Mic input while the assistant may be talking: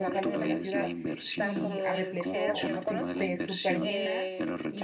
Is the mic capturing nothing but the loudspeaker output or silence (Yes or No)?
No